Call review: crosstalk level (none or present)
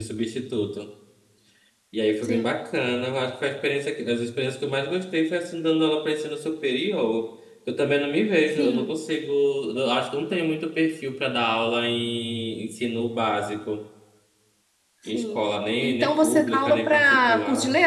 present